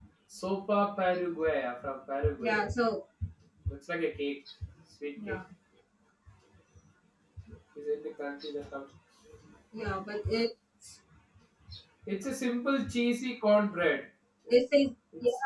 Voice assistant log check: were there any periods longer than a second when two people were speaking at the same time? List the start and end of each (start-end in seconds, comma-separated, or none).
none